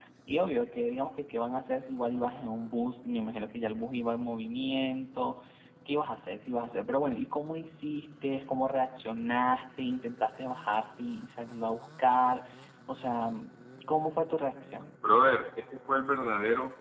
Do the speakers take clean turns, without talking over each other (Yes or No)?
Yes